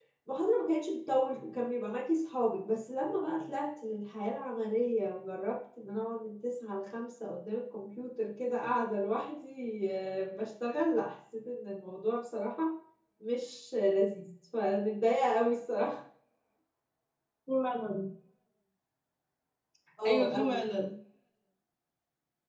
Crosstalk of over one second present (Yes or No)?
No